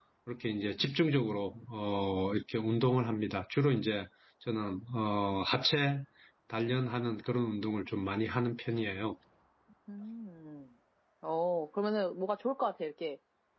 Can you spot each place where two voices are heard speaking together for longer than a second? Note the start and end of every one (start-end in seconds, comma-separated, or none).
none